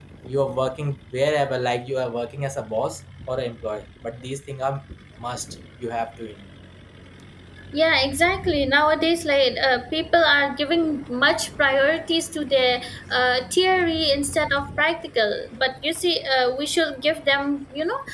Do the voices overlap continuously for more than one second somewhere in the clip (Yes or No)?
No